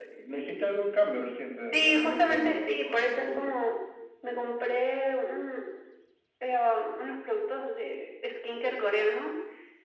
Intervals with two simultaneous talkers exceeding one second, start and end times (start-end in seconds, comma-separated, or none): 1.7-3.5